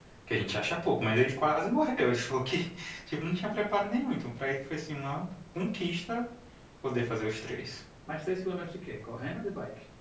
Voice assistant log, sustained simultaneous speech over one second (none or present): none